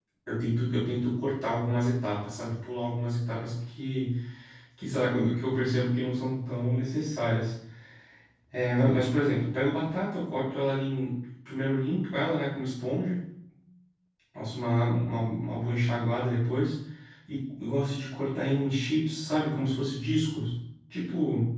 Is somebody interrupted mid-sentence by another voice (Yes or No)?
No